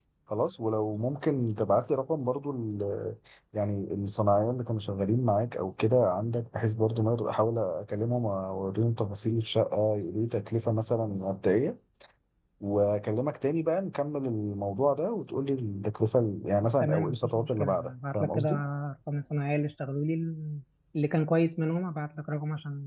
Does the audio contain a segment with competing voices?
Yes, from 16.8 s

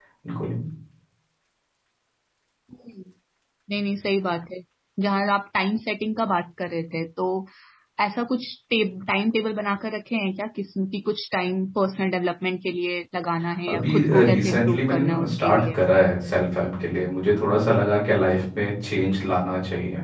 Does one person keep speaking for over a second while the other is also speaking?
Yes, from 13.7 s

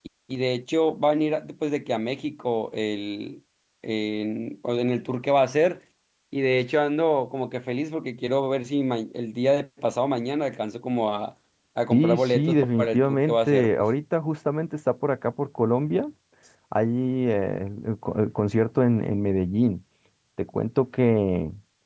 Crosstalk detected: Yes, from 11.9 s

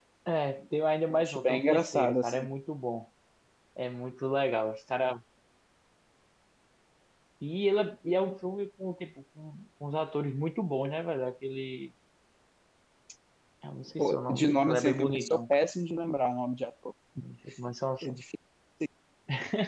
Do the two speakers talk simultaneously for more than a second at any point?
Yes, from 1.1 s

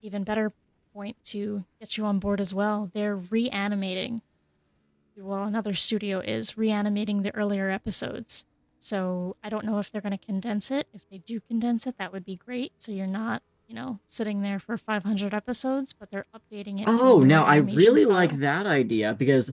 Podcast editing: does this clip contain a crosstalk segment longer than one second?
Yes, from 16.8 s

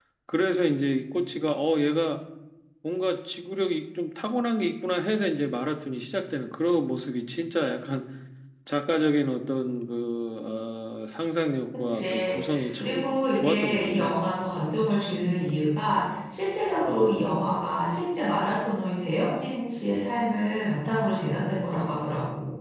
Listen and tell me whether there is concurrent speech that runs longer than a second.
Yes, from 11.7 s

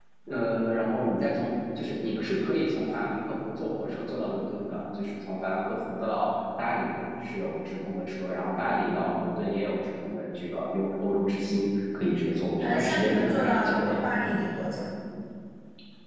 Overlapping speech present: Yes, from 12.6 s

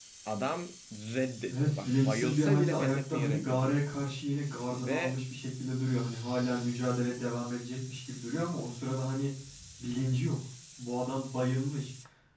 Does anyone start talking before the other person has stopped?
Yes, from 1.5 s

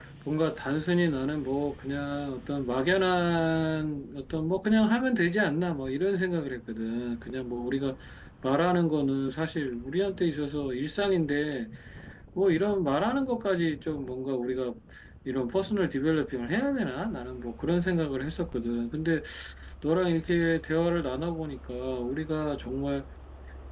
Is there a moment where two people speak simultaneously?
No

